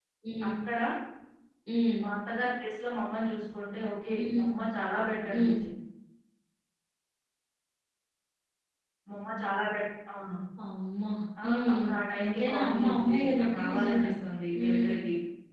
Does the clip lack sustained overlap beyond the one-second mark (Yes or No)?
No